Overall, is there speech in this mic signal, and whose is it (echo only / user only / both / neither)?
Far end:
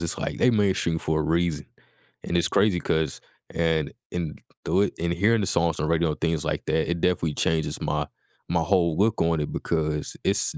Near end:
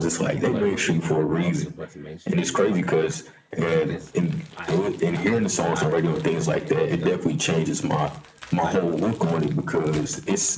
both